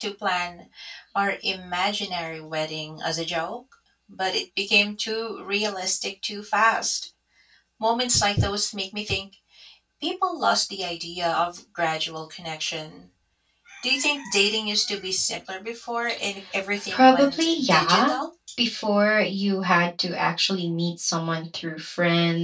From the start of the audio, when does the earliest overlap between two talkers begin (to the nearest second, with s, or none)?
17 s